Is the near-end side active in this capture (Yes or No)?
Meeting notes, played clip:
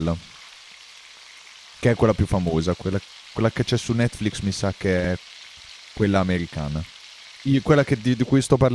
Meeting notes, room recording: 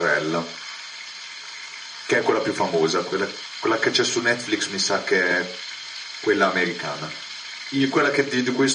No